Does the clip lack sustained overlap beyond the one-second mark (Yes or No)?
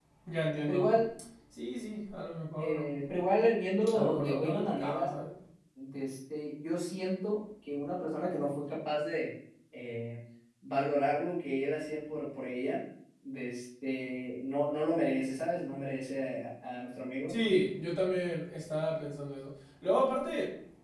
No